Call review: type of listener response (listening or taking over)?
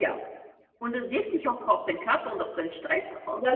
taking over